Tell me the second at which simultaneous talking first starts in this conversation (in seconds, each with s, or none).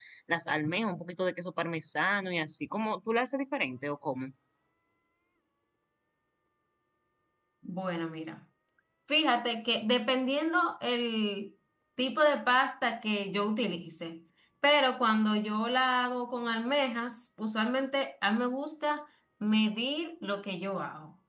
none